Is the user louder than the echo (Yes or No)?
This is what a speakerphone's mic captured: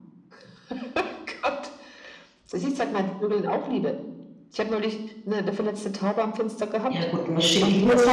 Yes